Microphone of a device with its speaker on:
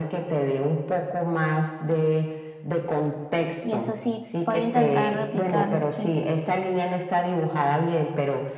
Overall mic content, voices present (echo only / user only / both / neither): both